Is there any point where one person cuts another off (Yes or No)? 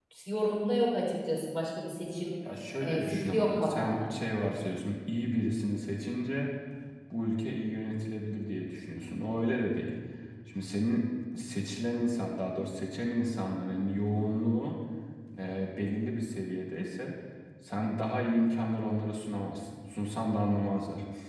Yes